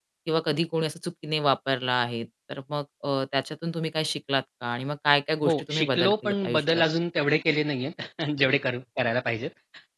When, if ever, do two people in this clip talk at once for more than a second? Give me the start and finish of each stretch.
5.4-6.8

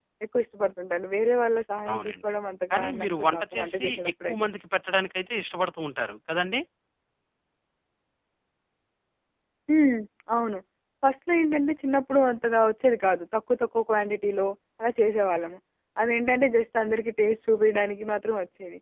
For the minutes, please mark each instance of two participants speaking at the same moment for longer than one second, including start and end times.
2.7-4.4

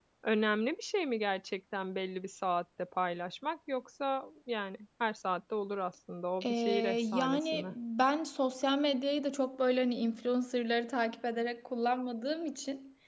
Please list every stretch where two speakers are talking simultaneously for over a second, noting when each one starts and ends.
6.4-7.7

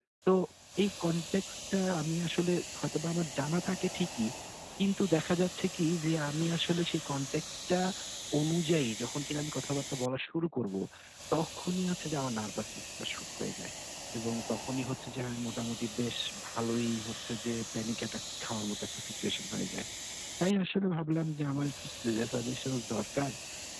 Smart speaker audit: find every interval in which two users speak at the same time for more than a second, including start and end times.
none

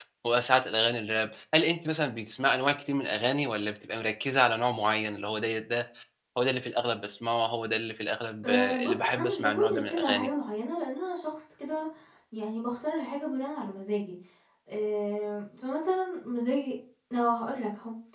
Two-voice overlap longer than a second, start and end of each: 8.4-10.3

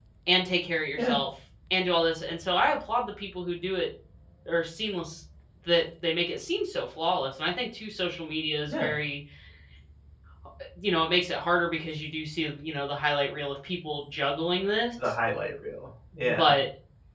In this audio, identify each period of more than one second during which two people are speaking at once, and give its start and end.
none

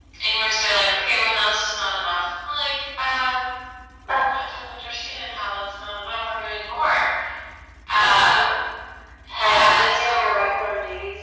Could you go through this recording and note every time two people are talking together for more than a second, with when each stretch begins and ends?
9.3-10.7

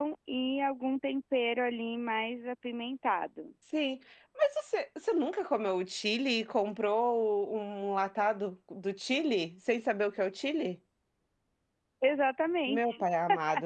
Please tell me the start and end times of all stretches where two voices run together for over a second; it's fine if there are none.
none

